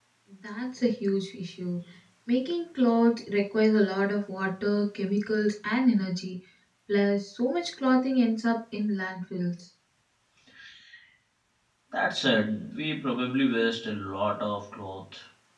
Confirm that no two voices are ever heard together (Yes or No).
Yes